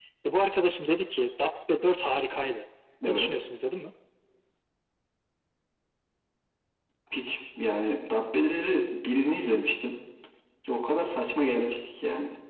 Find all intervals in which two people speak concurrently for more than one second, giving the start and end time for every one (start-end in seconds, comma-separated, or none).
none